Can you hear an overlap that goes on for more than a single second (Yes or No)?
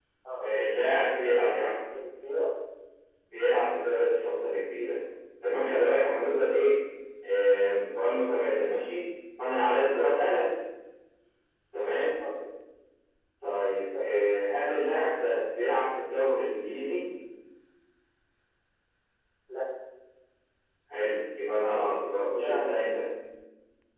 Yes